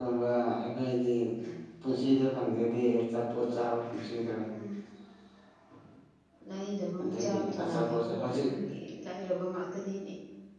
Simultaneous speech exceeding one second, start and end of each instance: 7.0-8.2

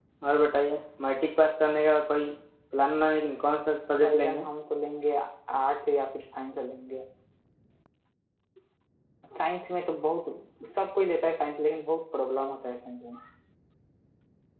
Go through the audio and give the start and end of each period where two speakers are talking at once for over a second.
none

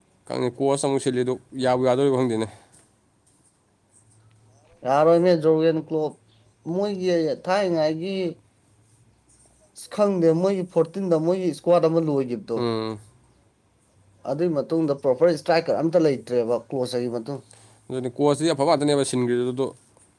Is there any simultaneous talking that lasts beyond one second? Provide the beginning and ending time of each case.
none

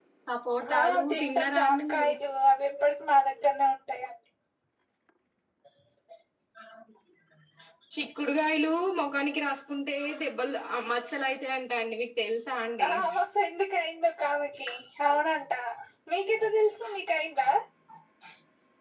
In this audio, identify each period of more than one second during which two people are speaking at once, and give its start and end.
0.8-2.1

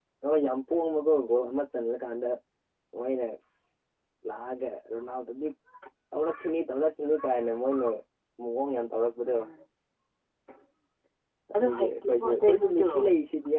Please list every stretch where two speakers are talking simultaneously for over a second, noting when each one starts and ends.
11.6-12.9

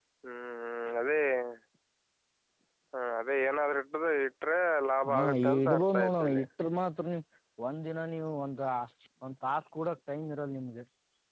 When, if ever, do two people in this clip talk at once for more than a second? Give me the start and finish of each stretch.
5.1-6.4

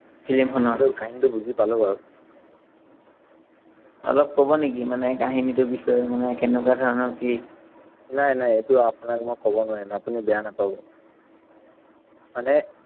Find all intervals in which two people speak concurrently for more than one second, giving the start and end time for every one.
none

